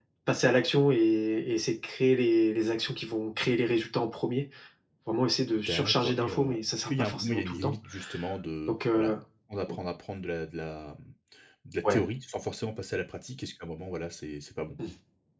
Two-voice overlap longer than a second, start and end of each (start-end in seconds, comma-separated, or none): 5.7-7.7